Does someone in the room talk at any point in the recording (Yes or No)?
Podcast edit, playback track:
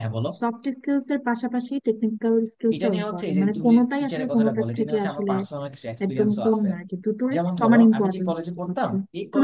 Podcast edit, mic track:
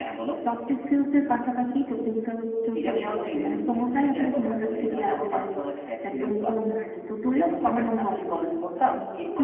No